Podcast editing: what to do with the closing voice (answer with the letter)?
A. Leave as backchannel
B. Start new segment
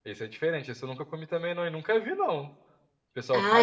B